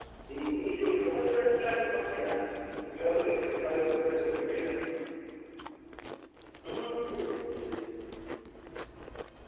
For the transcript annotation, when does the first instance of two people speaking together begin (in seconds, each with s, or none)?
2.9 s